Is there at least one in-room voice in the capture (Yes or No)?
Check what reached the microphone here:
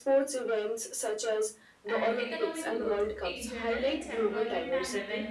Yes